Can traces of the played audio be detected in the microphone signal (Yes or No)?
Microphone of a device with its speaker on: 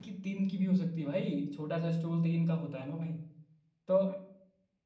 No